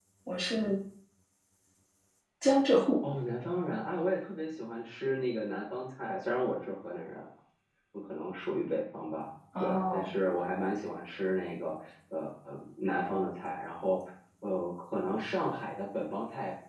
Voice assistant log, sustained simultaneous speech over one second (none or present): none